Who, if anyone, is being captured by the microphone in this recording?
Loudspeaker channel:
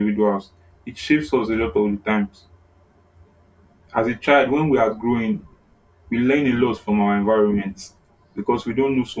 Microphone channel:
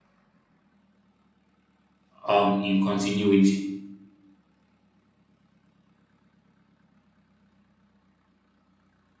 user only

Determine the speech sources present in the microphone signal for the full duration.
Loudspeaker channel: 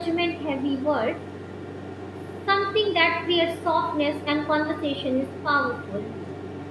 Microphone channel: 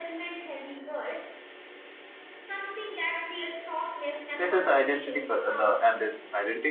both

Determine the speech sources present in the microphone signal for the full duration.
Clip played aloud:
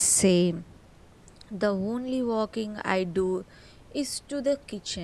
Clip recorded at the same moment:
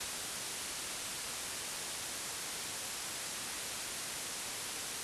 neither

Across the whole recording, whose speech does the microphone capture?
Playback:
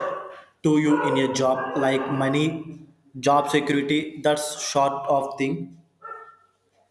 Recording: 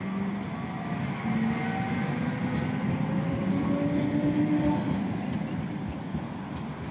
neither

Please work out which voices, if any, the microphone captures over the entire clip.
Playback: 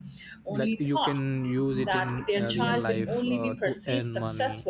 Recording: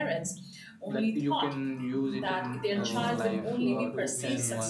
both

